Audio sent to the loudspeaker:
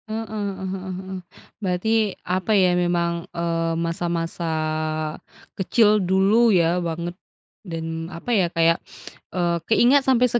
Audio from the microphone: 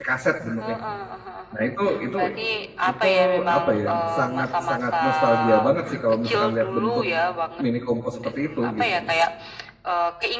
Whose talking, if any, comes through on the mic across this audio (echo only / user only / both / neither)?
both